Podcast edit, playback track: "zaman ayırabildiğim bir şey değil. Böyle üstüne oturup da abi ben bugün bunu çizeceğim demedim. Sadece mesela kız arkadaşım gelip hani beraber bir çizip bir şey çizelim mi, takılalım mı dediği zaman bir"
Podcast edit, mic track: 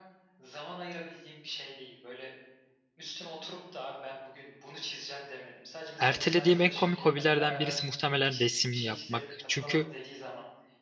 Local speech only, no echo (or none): Ertelediğim en komik hobilerden birisi muhtemelen resim yapmak. Çünkü